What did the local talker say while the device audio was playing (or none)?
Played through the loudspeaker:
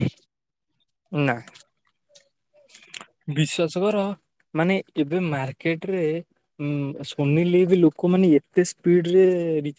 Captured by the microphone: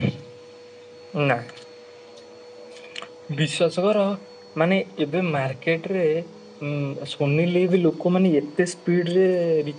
none